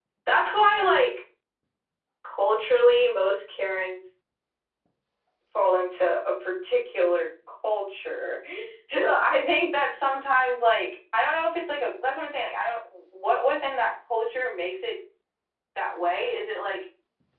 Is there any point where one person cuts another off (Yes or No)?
No